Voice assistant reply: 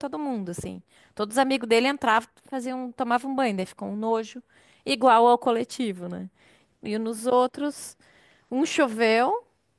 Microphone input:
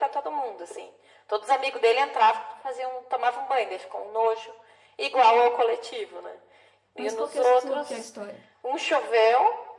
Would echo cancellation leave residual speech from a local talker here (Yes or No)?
Yes